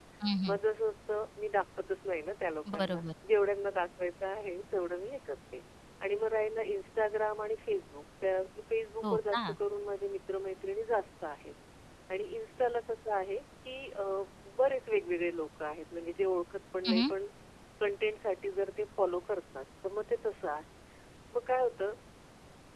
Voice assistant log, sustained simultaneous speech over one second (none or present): none